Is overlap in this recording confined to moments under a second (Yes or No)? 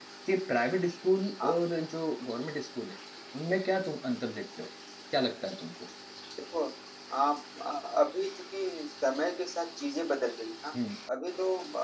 Yes